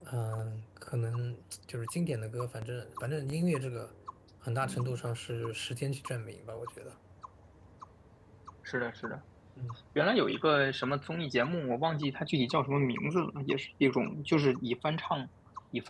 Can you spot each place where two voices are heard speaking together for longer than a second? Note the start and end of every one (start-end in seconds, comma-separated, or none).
none